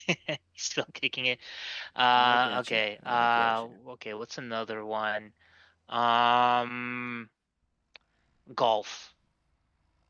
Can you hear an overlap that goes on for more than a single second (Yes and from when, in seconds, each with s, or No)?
Yes, from 2.2 s